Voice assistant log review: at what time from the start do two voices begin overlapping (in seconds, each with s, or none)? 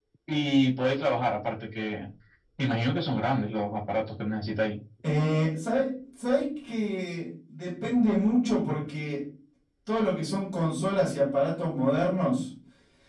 none